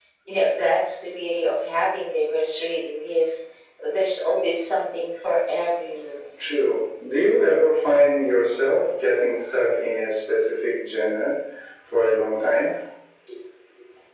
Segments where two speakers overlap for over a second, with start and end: none

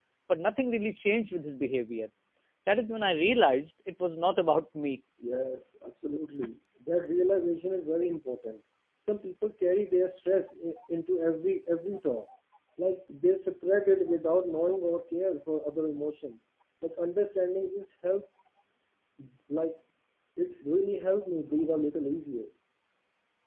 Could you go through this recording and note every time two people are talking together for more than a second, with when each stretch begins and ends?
none

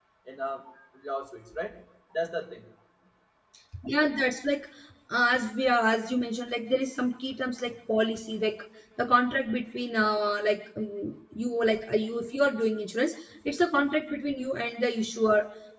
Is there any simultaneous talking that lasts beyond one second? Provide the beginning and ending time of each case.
none

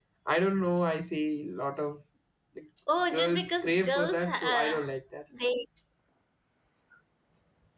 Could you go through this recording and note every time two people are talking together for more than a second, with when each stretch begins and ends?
3.1-4.8

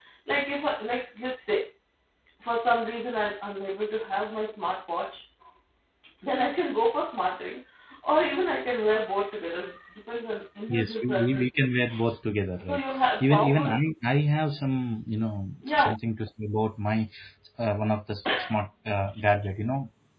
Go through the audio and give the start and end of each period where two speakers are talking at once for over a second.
10.7-12.1

